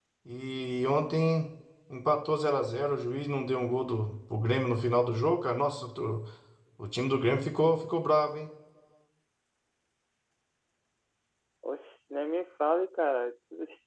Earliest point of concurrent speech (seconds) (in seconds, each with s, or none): none